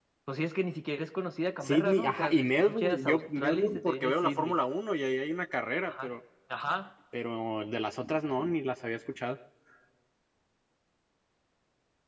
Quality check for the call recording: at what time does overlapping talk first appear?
2 s

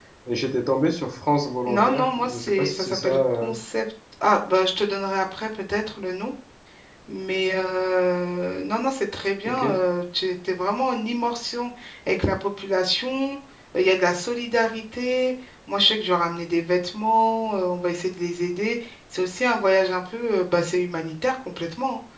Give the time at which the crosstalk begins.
2 s

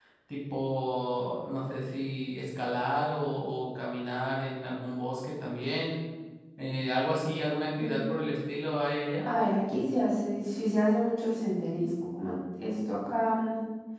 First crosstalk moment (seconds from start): none

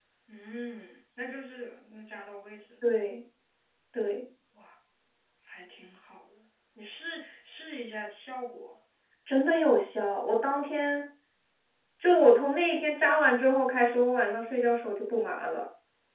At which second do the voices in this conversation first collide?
none

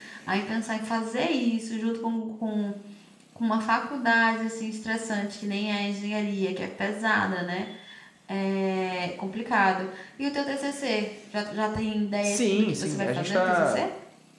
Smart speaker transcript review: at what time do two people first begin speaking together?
12 s

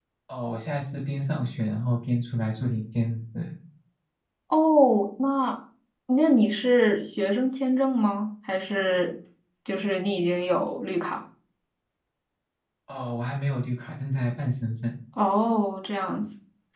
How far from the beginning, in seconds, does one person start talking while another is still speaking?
none

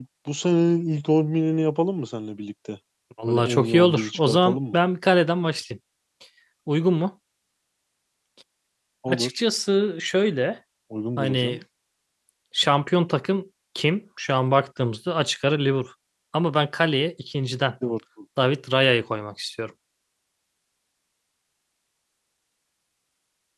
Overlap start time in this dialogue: 3 s

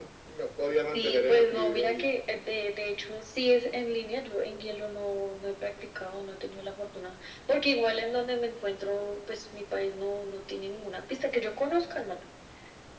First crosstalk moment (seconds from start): 1 s

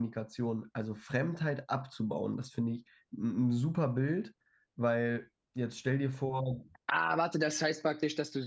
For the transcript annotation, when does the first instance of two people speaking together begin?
none

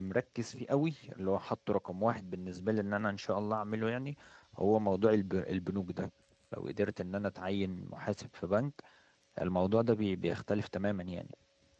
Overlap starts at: none

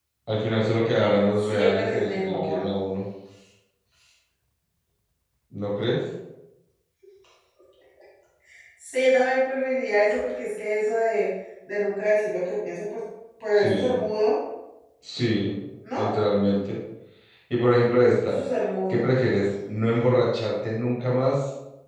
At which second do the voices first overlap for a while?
1 s

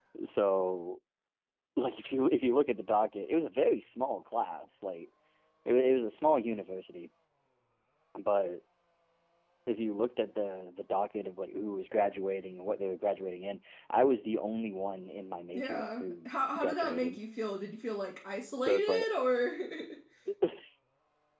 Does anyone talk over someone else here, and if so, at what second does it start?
16 s

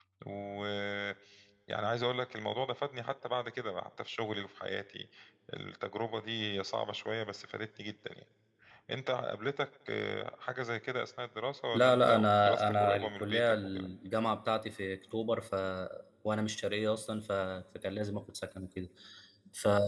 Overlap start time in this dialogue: 12 s

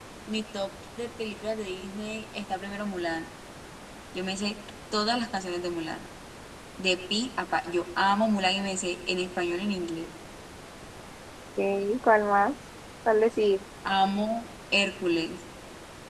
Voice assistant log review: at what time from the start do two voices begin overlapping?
none

